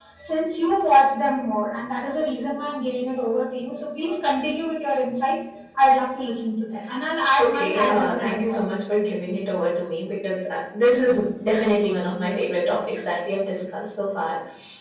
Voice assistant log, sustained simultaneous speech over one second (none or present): present